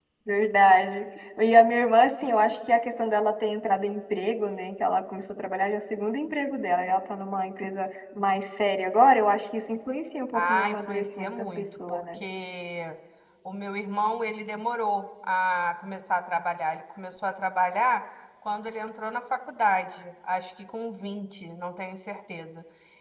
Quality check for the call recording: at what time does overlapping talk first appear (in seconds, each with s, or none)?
10.3 s